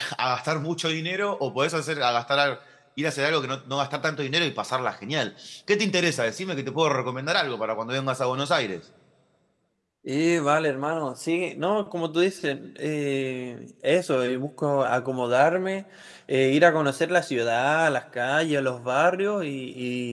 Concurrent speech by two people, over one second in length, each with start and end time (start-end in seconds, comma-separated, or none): none